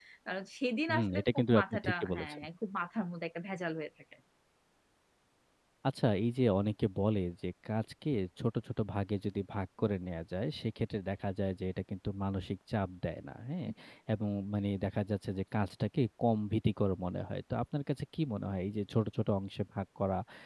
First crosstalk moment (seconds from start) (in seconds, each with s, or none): 0.9 s